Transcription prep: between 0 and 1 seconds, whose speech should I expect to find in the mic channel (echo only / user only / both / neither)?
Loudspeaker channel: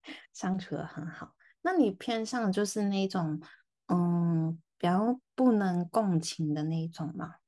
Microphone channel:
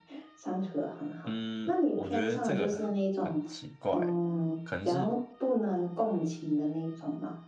echo only